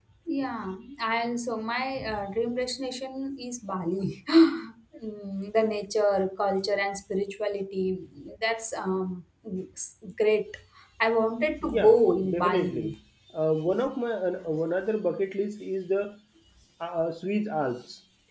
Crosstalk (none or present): present